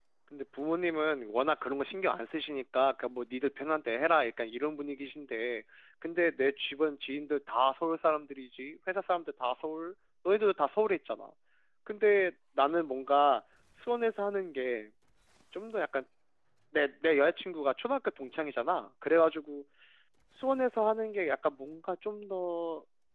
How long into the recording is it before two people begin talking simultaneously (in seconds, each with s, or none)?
none